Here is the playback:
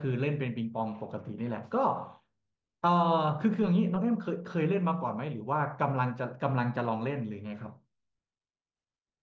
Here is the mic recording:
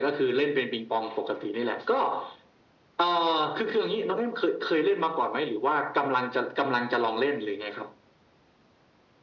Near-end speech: none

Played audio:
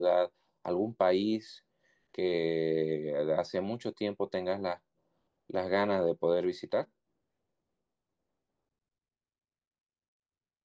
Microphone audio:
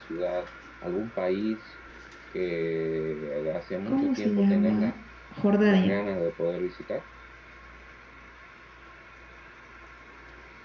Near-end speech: present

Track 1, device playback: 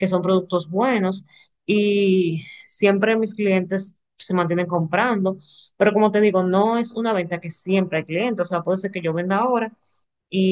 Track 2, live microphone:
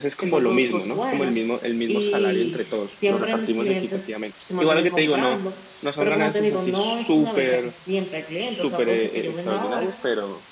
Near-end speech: present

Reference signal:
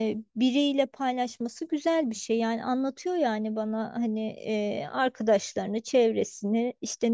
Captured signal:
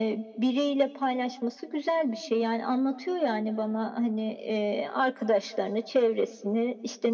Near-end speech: none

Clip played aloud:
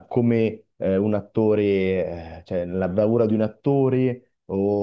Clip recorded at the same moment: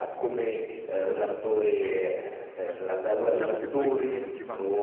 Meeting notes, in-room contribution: present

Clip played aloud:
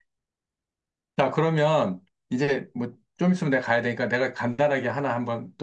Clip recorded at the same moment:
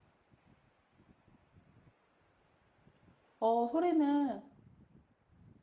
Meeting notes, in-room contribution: present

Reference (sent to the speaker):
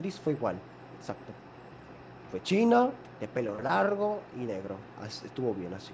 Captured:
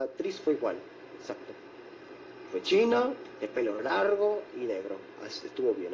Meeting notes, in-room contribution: none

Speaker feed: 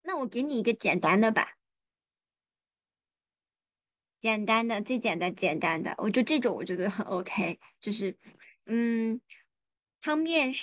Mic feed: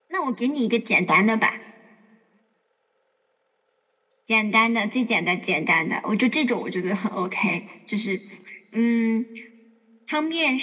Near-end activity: none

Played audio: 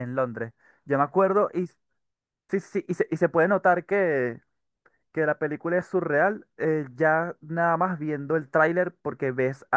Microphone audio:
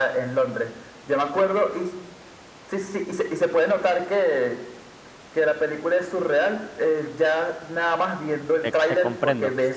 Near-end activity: present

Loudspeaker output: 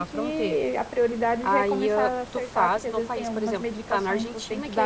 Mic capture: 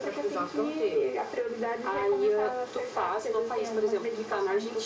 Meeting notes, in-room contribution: none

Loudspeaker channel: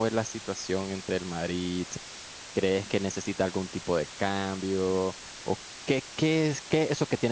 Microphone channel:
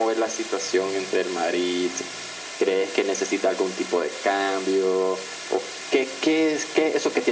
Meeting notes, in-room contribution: none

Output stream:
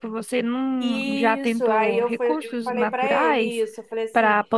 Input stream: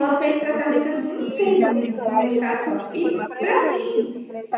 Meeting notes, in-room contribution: present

